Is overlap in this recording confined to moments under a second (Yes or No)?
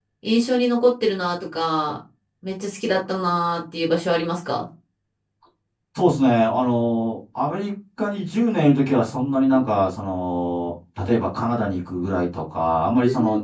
Yes